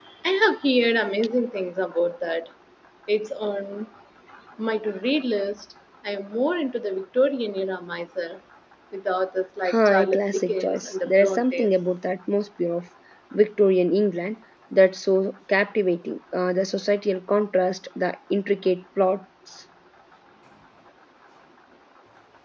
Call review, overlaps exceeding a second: present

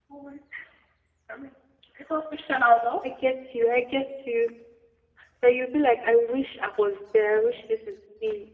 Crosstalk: none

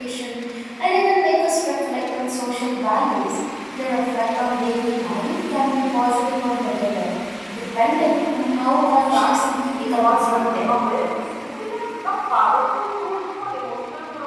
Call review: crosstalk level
present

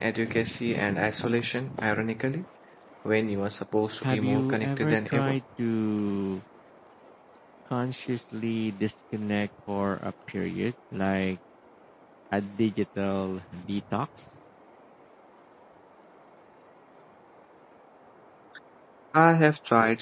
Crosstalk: present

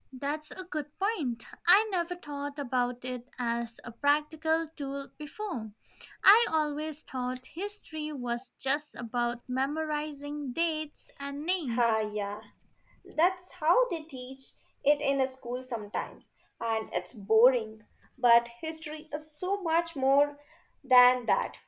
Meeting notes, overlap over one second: none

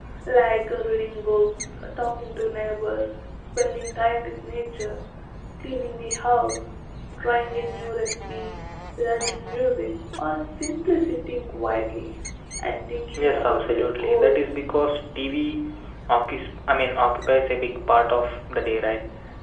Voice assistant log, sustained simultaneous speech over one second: present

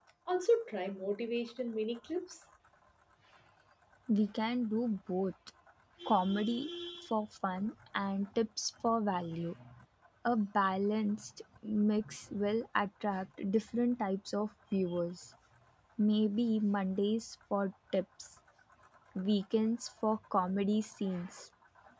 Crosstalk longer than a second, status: none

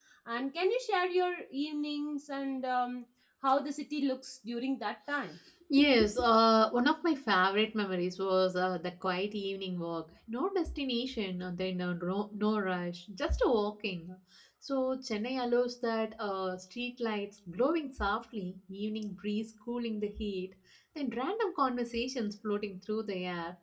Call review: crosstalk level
none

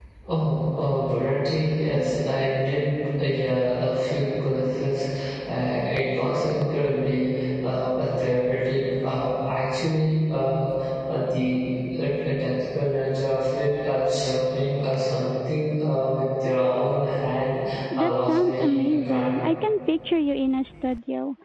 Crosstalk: present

